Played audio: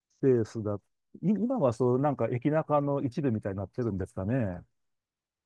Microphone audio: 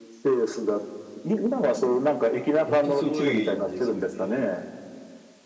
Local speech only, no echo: 本当すごいですよね。

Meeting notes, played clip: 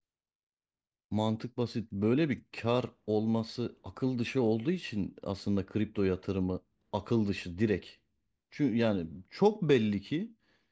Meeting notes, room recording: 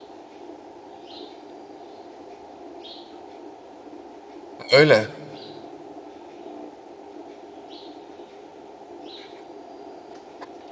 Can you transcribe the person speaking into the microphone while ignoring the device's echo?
Öyle.

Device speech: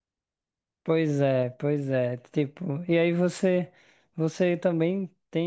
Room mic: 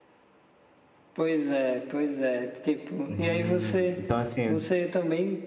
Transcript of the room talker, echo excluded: Hum. Então, assim.

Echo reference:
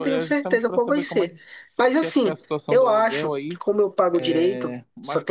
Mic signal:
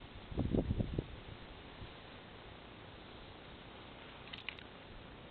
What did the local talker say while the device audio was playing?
none

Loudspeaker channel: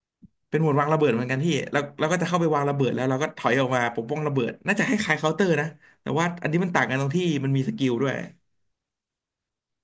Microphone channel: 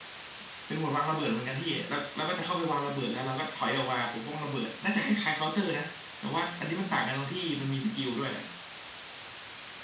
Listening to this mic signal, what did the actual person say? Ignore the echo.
none

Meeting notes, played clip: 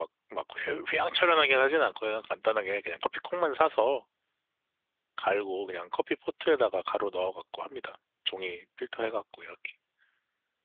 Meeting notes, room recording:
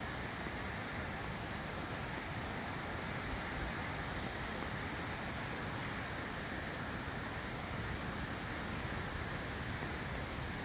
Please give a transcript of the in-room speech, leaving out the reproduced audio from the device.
none

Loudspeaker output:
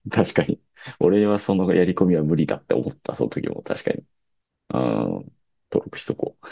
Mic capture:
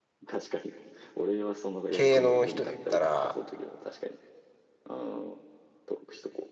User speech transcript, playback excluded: 系の人で言ったら、

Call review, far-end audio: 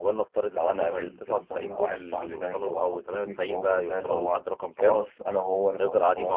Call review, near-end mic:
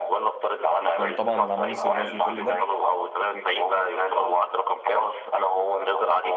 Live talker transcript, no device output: لو طبعا عملنا سرفايف لكل ده

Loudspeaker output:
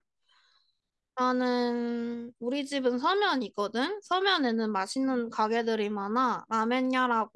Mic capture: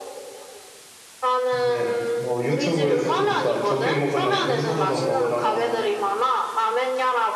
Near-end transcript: 근데, 어, 유튜브에서 보니까 적게 먹으려면 왼손으로 먹으라고 하대.

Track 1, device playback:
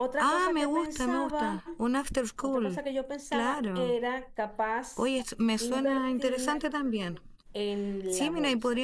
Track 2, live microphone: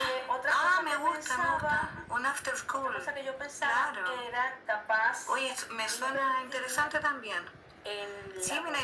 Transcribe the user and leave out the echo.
none

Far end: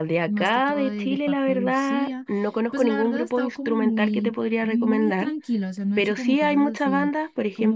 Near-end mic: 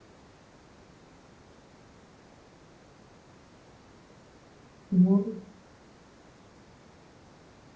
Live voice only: Fútbol,

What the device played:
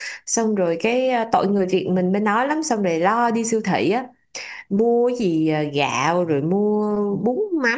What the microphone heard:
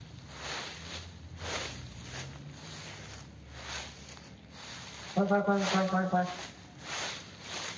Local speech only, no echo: khoan khoan khoan khoan khoan khoan

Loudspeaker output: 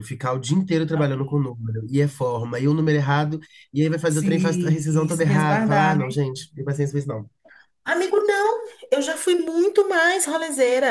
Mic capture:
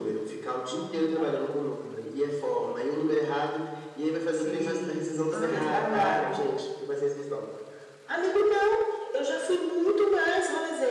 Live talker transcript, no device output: Ai, para,

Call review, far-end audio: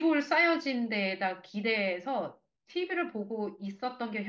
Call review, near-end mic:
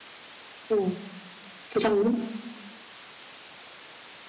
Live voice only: 어. 조상님?

